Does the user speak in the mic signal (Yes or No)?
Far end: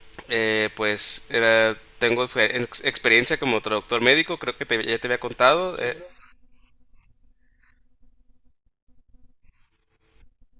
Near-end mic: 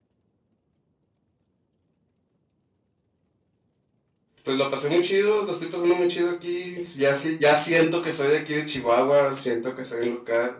Yes